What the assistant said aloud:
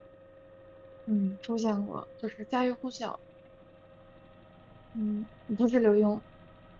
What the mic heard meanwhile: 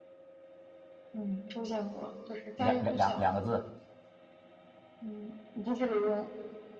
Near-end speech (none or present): present